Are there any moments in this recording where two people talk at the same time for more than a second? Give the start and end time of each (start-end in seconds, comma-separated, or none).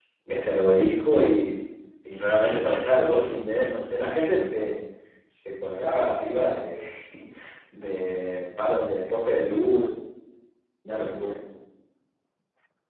none